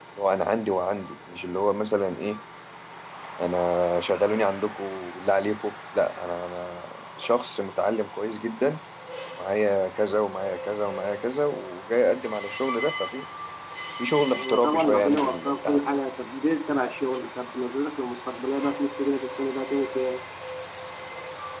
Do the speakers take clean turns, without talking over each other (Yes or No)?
No